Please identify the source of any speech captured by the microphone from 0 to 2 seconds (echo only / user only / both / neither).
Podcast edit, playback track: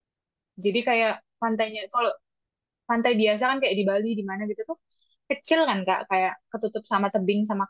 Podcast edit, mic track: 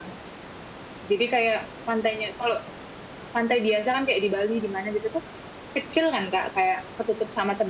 echo only